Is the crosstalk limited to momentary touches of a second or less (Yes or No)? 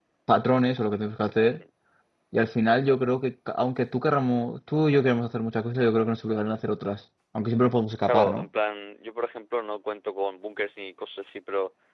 Yes